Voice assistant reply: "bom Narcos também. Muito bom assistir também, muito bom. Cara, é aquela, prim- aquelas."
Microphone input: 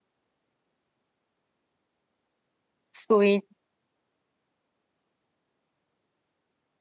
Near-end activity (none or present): present